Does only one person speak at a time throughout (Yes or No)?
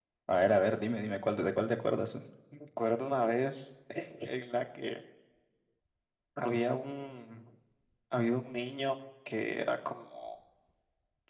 Yes